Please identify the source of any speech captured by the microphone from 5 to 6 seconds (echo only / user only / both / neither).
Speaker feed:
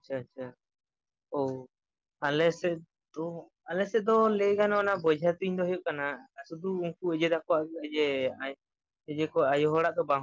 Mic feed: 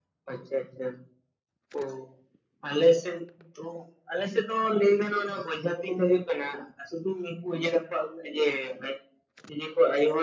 echo only